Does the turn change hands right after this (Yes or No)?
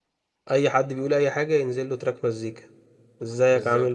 No